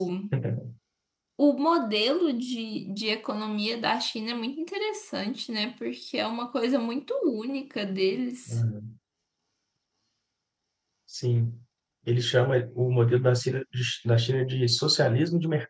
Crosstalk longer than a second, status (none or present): none